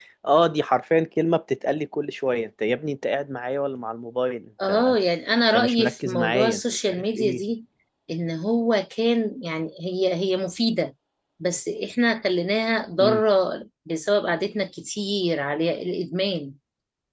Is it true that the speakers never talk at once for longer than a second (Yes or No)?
No